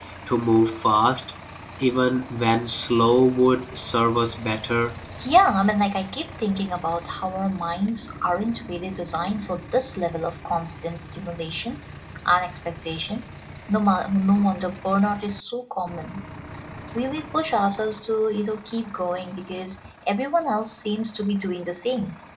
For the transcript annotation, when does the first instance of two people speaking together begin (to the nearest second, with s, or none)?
none